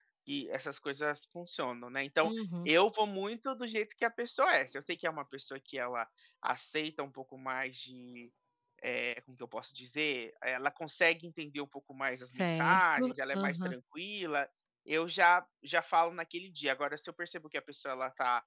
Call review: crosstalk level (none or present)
present